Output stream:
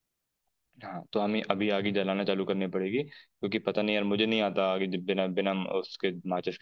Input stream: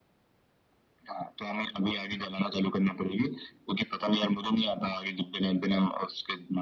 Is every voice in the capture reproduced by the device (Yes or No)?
Yes